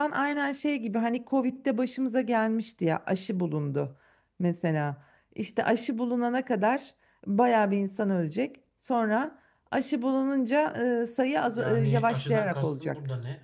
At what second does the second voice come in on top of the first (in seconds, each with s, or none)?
11.5 s